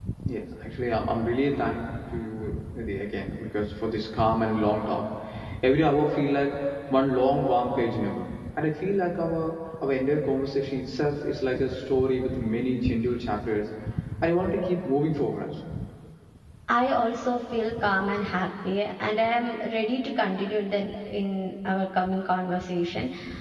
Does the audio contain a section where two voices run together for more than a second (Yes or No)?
No